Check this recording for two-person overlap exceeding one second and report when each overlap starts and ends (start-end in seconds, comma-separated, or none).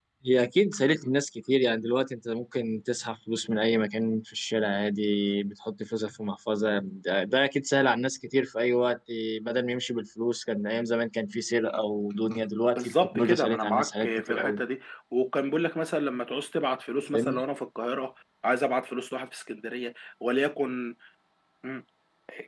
12.8-14.6